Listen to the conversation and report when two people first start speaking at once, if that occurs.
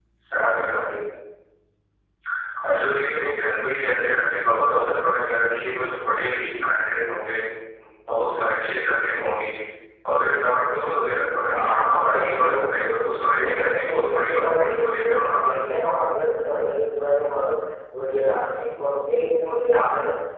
11 s

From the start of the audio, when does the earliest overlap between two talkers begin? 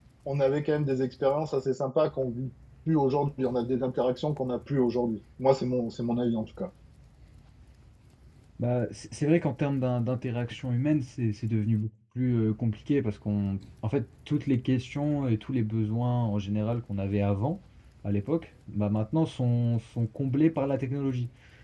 none

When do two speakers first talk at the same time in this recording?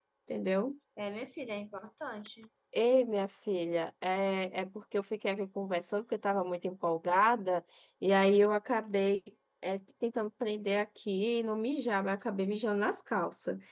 none

